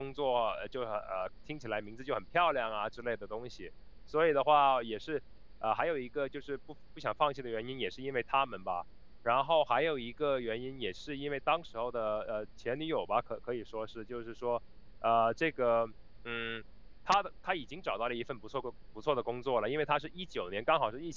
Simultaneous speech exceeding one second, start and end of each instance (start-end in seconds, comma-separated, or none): none